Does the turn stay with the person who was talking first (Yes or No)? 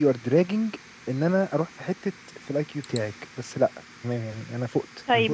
No